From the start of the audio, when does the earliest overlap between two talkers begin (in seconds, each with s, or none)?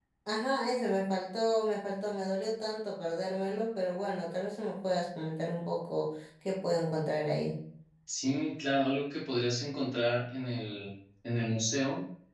none